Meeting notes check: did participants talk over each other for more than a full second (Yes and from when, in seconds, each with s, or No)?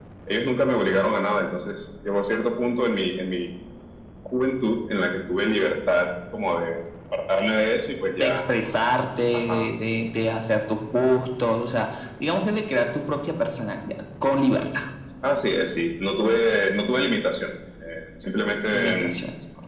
No